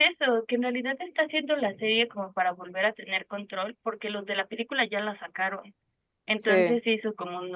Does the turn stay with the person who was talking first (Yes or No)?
Yes